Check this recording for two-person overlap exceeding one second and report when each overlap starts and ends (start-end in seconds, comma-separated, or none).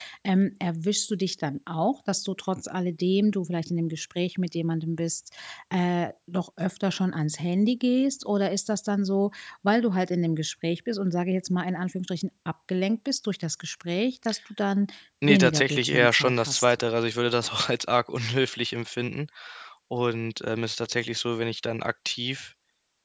15.2-16.7